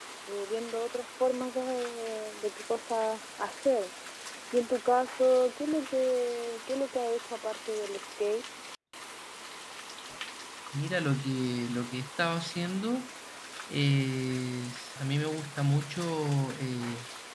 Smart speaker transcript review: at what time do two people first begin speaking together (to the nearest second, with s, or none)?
none